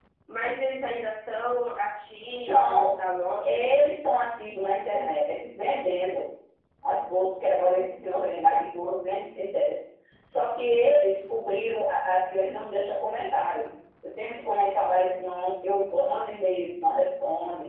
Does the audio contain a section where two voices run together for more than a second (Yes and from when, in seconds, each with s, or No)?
No